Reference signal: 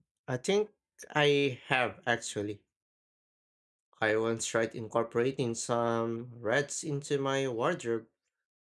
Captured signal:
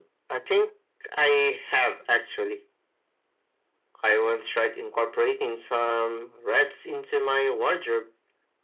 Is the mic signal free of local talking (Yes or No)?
Yes